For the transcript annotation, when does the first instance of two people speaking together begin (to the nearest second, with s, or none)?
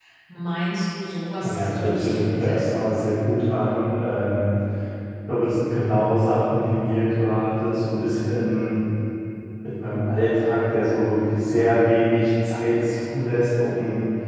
1 s